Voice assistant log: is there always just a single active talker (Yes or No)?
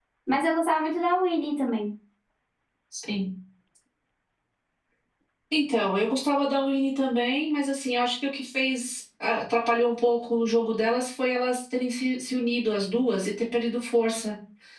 Yes